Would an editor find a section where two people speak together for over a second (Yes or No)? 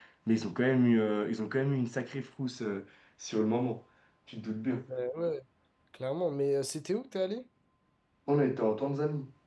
No